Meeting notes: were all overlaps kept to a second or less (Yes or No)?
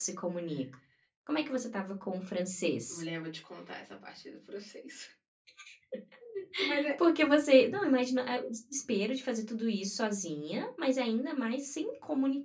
Yes